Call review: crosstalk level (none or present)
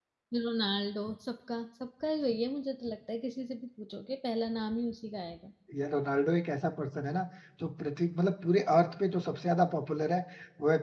none